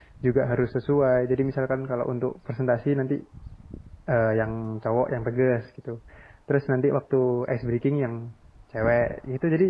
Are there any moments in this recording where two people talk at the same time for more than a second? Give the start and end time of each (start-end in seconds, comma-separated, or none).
none